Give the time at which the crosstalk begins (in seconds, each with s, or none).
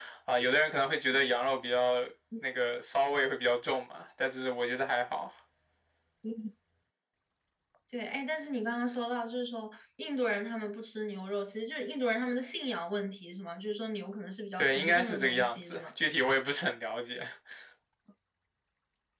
14.6 s